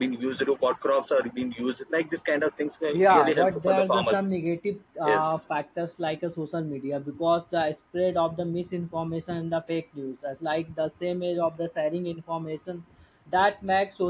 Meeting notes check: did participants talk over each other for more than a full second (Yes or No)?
Yes